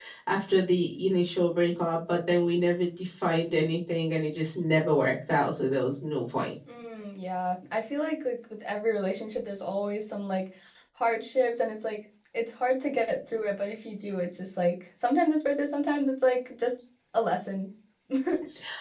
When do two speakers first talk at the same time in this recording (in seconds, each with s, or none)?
none